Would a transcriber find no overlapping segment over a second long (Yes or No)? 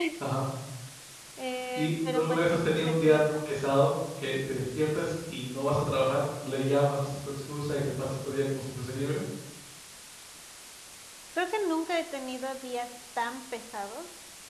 No